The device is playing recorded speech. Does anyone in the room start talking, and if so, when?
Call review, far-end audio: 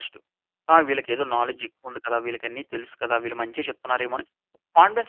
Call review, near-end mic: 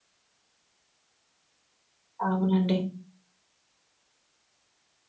2.3 s

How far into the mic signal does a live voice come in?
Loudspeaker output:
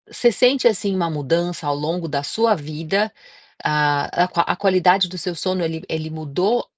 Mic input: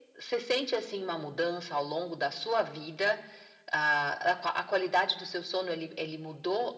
none

